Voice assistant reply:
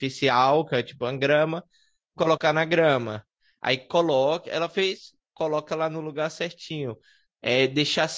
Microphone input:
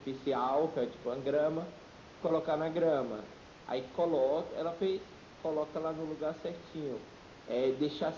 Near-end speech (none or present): none